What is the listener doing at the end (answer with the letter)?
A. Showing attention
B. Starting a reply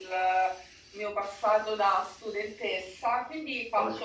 A